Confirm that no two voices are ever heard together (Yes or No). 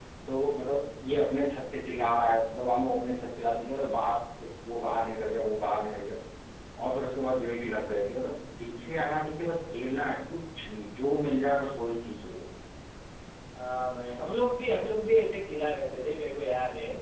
Yes